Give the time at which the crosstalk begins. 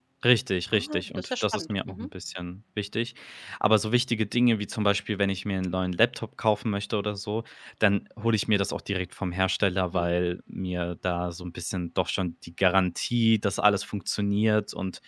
0.7 s

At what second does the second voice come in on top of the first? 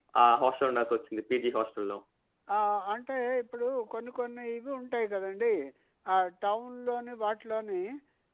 none

